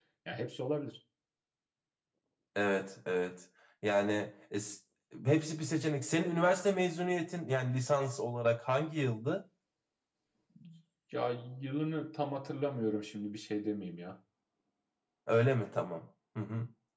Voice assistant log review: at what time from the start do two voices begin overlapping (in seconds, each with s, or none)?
none